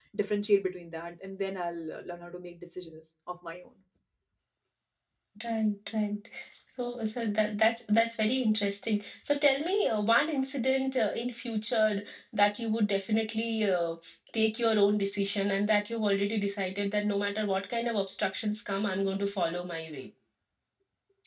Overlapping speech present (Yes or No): No